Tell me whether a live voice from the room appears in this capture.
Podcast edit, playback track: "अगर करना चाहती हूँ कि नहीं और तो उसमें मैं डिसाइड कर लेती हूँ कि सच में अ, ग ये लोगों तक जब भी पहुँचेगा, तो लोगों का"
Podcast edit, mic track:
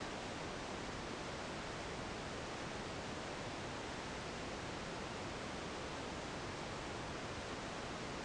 No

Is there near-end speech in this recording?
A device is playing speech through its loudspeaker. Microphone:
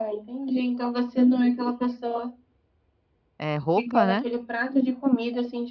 Yes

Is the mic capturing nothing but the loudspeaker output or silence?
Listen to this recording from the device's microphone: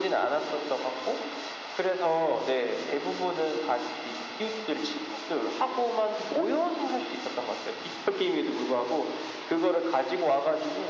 Yes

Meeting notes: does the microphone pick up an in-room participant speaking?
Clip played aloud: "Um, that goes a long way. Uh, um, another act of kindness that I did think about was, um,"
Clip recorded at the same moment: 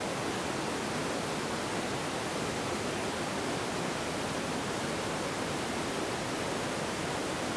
No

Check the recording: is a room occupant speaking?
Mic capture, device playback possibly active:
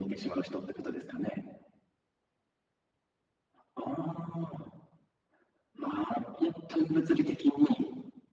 No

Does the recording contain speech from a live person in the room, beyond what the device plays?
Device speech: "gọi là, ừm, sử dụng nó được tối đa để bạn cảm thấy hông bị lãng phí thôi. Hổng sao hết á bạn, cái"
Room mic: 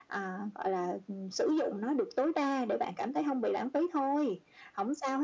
No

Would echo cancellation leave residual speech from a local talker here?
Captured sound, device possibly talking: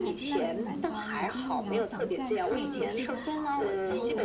Yes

